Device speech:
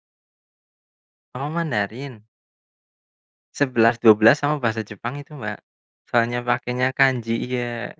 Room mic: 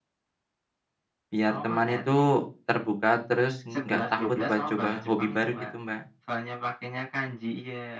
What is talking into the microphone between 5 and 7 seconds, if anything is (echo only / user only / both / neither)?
both